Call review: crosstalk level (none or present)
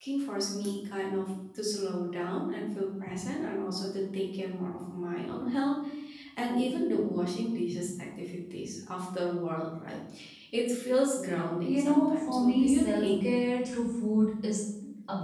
present